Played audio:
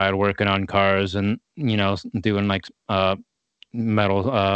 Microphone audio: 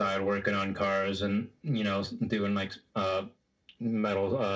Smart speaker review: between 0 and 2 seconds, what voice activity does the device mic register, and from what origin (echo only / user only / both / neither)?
echo only